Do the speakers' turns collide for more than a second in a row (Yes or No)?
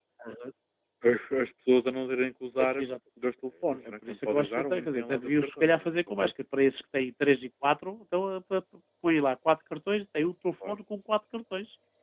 Yes